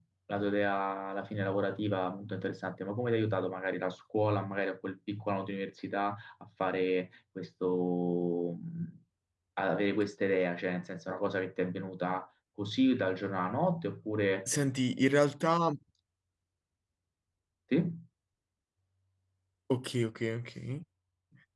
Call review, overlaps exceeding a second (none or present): none